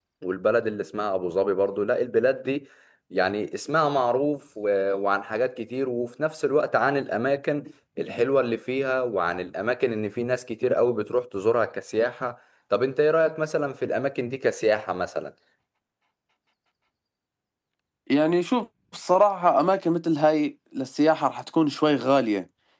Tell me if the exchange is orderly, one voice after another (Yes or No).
Yes